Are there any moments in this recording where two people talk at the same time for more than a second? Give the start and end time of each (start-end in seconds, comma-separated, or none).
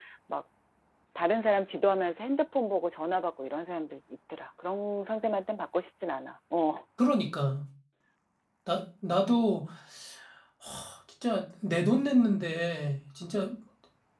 none